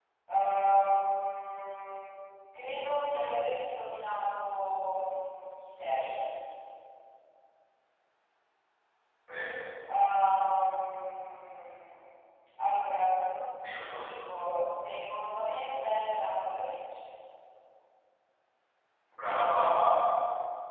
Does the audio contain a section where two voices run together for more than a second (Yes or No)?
No